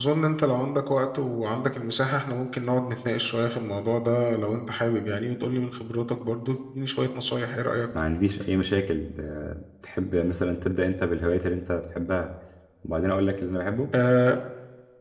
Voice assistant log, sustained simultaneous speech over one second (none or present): none